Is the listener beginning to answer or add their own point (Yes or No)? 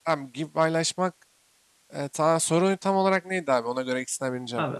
Yes